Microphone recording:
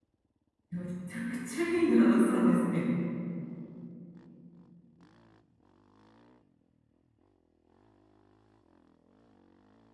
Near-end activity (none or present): present